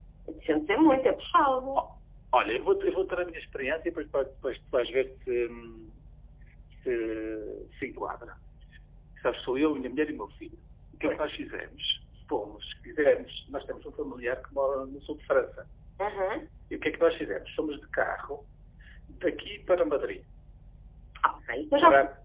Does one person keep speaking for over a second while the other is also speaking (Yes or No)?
No